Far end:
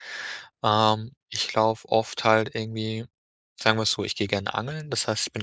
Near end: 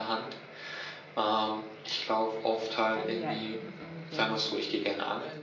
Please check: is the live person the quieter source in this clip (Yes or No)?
Yes